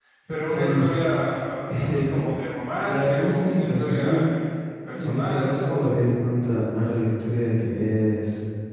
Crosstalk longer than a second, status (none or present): present